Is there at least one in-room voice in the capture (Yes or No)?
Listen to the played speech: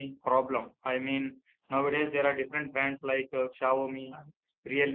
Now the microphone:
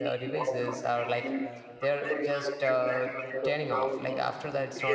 Yes